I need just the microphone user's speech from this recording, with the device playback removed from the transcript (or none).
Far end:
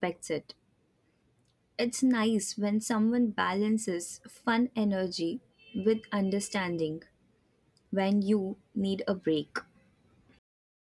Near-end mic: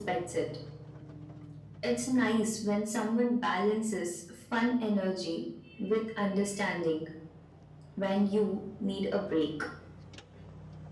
none